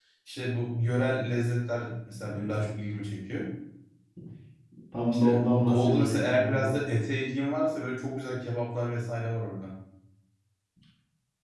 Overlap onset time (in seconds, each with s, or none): 5.1 s